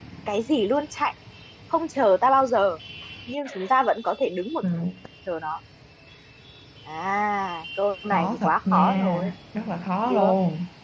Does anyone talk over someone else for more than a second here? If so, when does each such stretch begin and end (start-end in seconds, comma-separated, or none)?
8.1-9.3